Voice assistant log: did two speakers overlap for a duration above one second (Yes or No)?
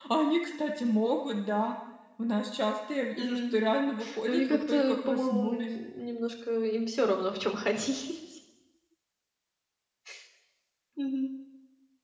Yes